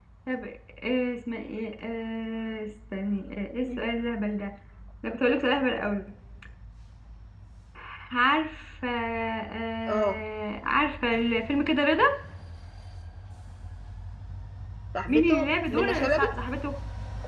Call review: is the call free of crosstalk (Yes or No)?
No